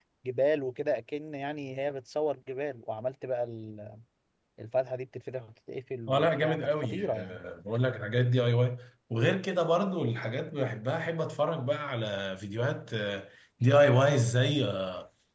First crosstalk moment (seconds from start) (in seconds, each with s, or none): 6.1 s